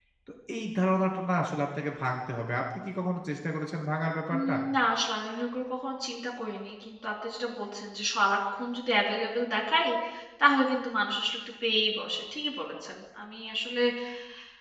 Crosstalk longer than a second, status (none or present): none